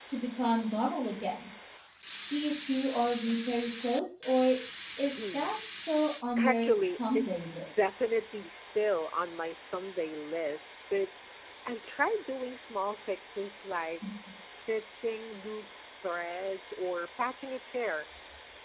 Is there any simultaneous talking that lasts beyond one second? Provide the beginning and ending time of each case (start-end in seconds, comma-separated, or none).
6.4-7.8